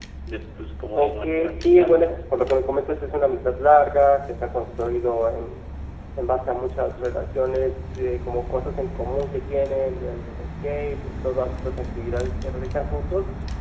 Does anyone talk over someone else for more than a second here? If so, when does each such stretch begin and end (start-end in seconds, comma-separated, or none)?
0.9-2.2